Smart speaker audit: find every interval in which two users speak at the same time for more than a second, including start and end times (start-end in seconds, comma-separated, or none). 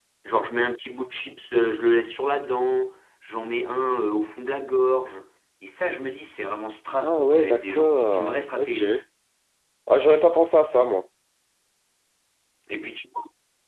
7.0-8.8